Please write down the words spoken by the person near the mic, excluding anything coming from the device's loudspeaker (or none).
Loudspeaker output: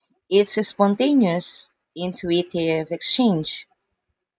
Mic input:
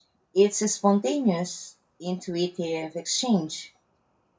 none